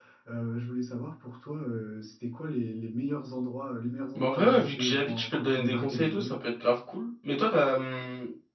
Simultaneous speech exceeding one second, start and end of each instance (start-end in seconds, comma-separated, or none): 4.2-6.4